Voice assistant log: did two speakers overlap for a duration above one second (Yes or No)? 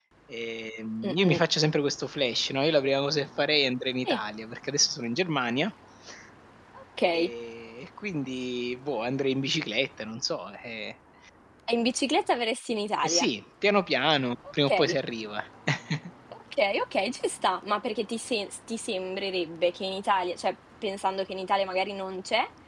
No